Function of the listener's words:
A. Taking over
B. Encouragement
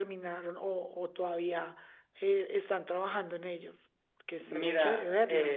A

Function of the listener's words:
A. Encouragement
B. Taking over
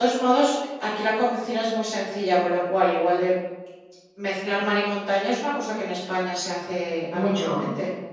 B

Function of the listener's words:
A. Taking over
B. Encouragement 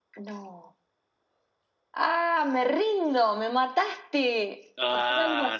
A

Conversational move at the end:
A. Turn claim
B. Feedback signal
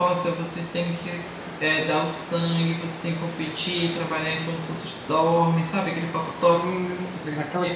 A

